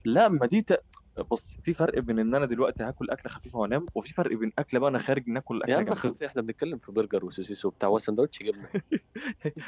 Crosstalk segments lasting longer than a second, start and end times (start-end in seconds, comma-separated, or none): none